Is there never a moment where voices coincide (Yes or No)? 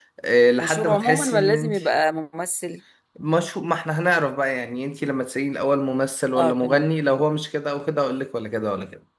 No